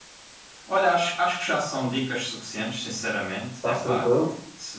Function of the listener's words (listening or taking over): listening